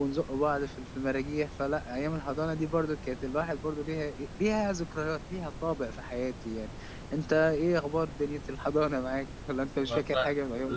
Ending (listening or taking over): taking over